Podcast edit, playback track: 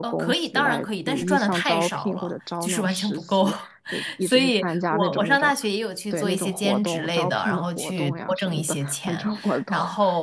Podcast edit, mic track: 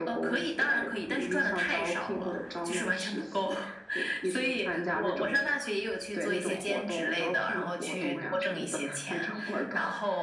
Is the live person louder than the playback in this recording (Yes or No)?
No